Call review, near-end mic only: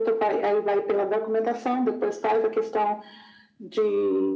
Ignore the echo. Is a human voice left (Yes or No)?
No